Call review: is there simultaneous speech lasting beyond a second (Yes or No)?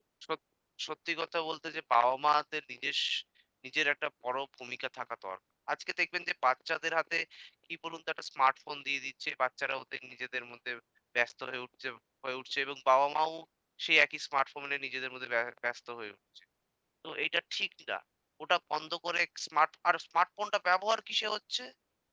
No